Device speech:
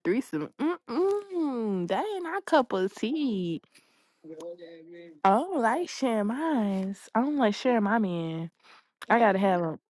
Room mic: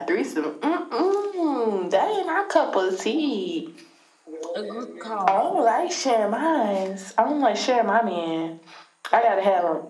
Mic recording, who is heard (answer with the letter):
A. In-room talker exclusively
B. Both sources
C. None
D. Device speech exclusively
B